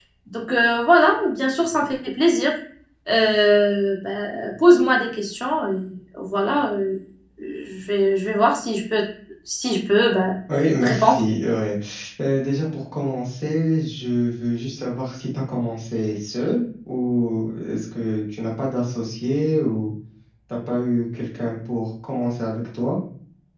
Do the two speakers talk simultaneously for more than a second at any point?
No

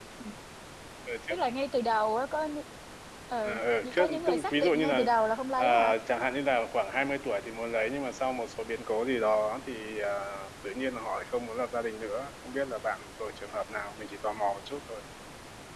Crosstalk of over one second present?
Yes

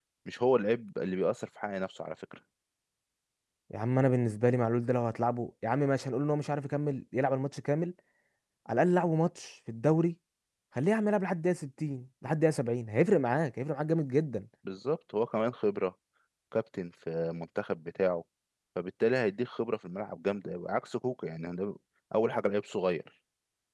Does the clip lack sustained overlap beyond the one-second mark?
Yes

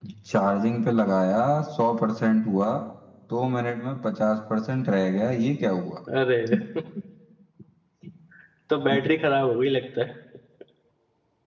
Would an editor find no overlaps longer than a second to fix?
Yes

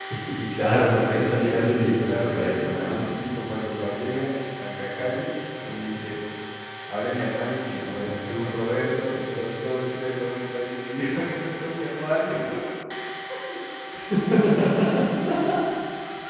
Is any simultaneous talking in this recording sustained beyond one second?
Yes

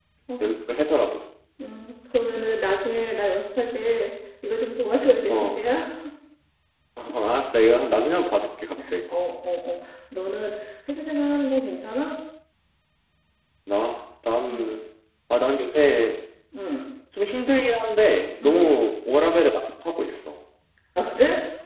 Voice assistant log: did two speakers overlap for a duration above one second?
No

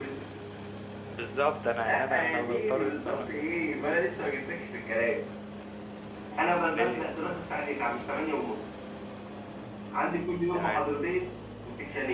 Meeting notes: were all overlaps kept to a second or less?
No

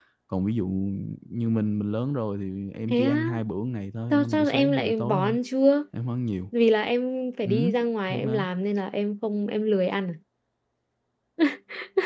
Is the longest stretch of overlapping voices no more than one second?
No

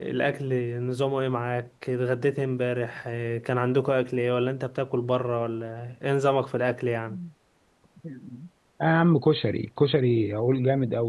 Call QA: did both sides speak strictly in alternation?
Yes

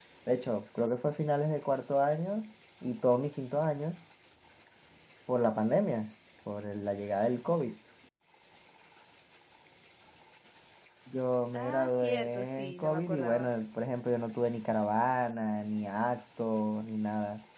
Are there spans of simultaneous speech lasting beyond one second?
Yes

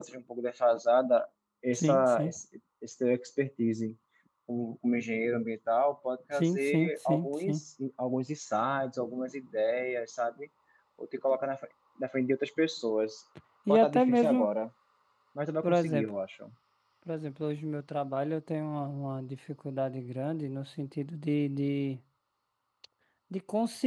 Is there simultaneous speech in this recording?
Yes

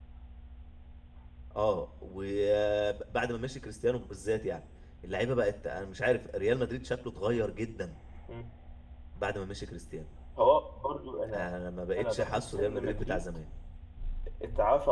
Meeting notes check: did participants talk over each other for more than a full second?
Yes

